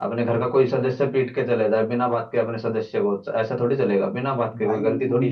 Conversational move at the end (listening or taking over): taking over